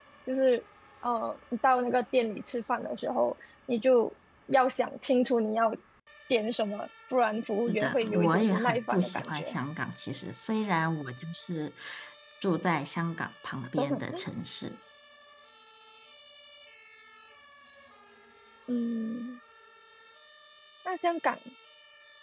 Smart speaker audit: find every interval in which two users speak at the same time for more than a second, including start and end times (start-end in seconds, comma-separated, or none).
7.7-9.6